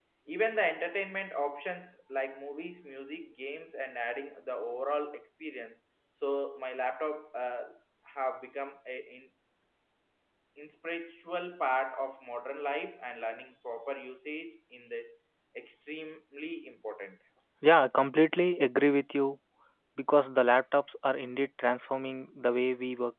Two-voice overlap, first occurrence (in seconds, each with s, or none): none